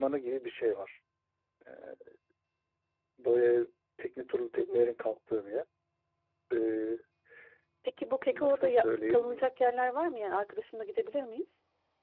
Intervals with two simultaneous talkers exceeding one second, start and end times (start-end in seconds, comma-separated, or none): 8.3-9.5